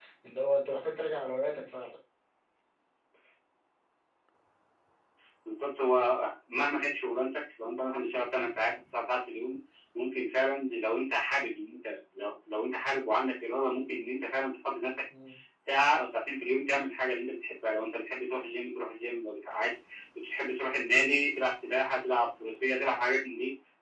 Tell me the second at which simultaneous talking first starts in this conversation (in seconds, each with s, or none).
none